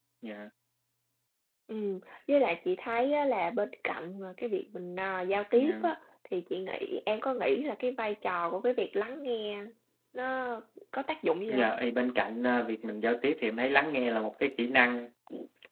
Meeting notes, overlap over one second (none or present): none